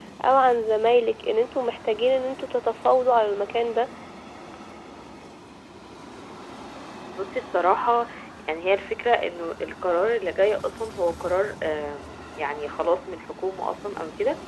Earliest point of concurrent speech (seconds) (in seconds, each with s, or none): none